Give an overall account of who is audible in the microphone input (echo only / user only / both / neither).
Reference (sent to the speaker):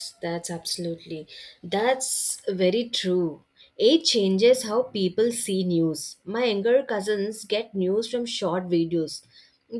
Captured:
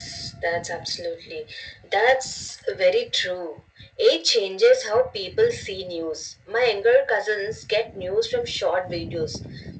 echo only